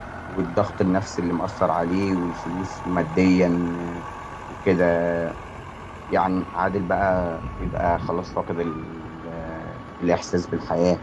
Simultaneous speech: No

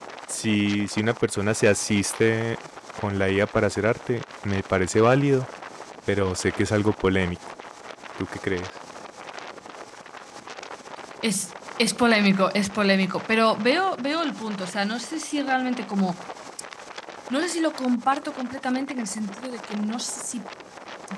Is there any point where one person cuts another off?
No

